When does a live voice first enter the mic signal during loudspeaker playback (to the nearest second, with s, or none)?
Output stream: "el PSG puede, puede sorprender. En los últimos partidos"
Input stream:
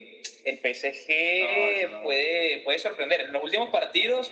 1 s